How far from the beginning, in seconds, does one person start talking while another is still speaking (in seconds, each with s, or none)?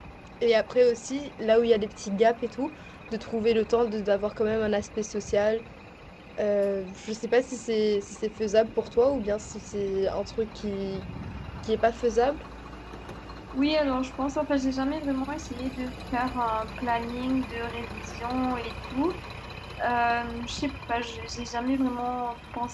none